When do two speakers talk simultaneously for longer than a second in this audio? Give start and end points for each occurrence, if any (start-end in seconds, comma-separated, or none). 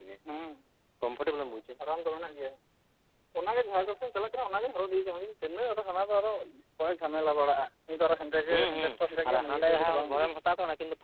8.5-10.4